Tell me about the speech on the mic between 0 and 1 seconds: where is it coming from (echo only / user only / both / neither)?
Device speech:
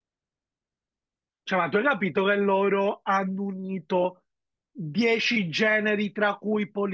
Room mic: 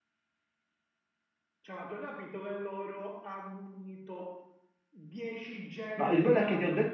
neither